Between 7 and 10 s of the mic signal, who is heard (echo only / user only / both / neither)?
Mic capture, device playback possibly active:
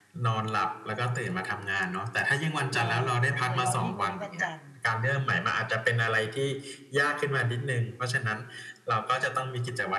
echo only